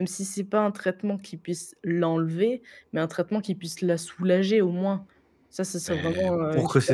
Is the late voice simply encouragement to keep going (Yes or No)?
No